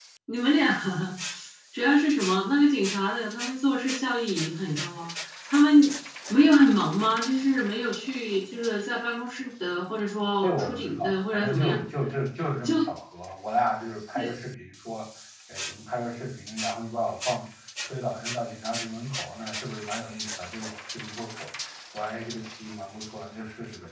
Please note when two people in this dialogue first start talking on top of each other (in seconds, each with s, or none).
10.4 s